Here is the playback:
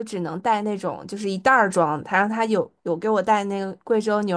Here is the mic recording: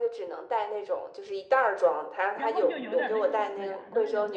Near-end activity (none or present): present